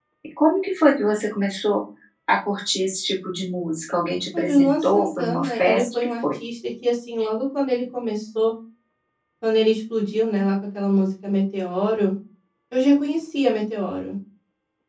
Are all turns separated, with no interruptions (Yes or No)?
No